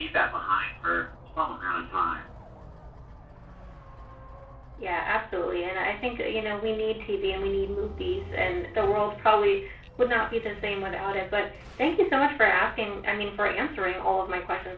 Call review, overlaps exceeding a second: none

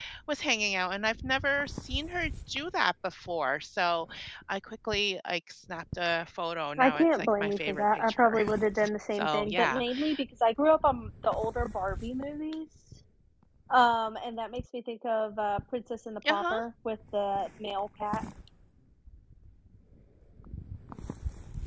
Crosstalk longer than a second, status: present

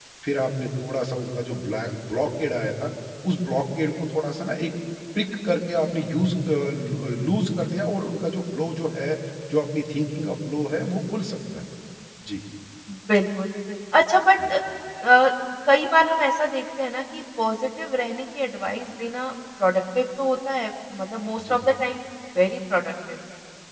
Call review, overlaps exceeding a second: none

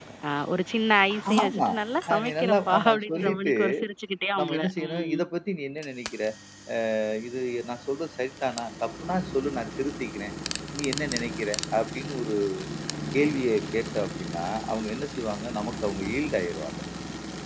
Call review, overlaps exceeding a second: present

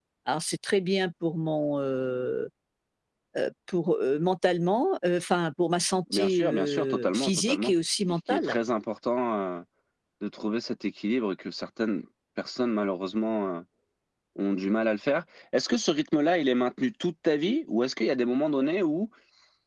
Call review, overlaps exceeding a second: present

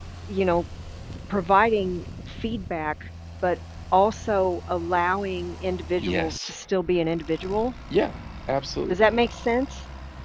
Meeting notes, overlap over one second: none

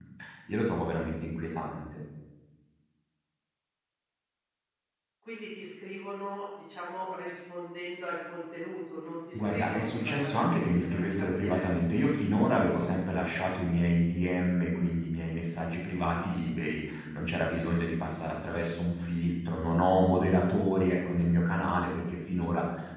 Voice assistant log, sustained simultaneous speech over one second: present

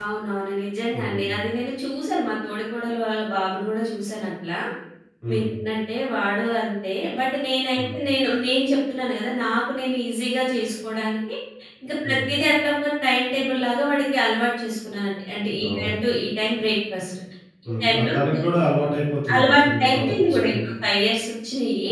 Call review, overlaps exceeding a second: present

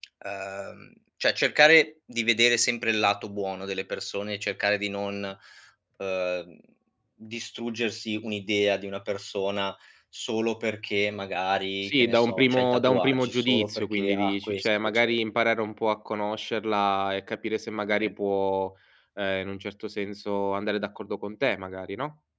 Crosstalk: present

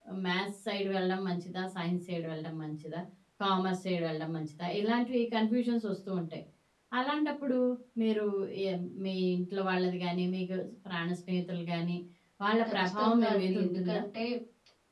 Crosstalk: present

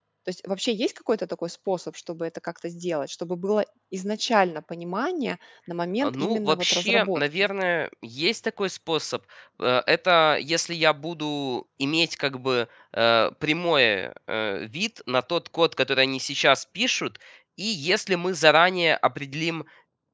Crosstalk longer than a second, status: present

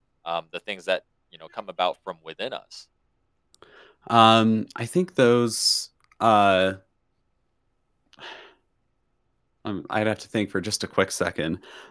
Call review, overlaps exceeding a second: none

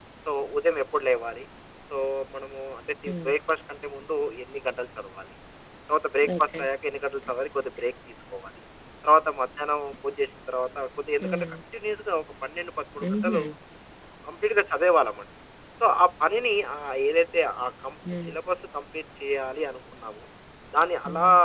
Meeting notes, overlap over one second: none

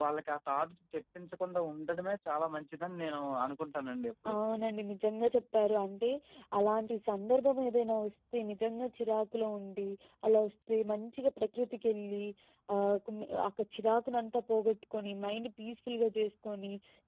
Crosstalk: none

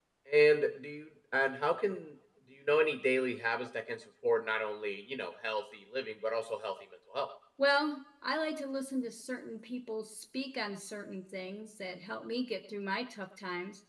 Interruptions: none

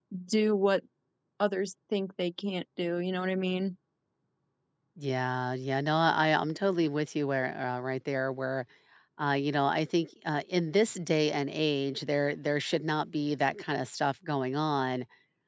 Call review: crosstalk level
none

